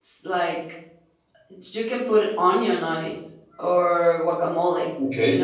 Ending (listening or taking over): listening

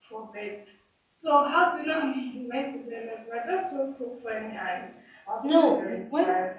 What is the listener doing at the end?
taking over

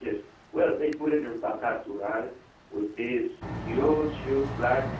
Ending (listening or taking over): listening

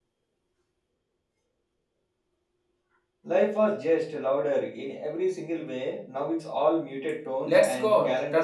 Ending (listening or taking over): taking over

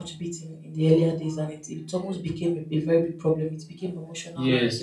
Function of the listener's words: taking over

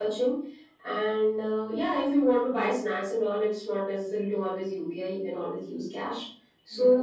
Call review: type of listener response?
listening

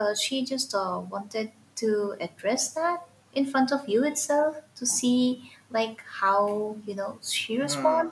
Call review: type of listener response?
taking over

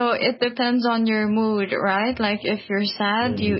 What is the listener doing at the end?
listening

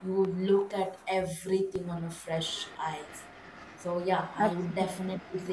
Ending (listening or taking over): listening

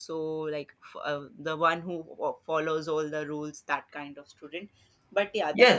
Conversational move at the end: taking over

